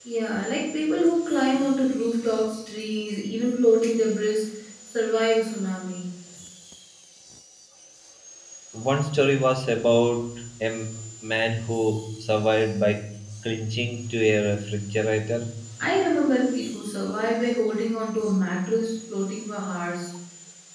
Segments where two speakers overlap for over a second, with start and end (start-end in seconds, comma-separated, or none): none